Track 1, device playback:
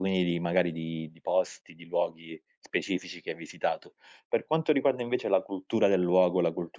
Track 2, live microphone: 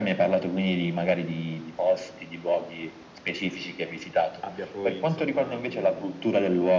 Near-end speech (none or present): present